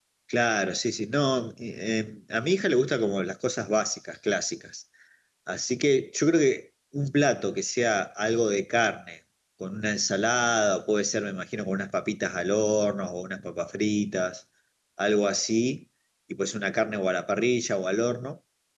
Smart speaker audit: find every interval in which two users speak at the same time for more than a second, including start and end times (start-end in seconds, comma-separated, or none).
none